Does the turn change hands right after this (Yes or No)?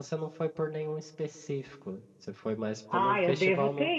Yes